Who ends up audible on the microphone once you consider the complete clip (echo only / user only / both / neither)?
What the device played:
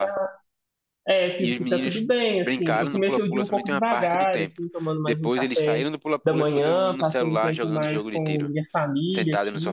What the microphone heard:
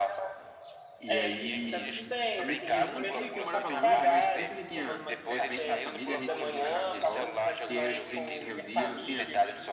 both